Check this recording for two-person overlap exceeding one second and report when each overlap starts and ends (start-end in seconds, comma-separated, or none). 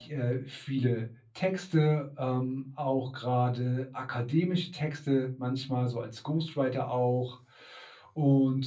none